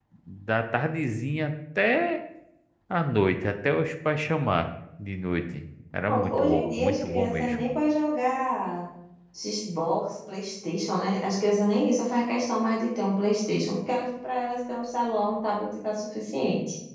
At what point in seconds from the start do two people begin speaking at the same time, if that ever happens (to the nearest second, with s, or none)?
6 s